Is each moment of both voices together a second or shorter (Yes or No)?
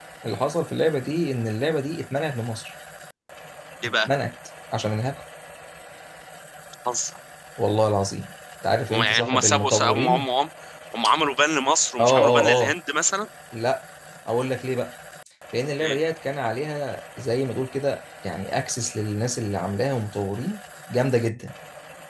No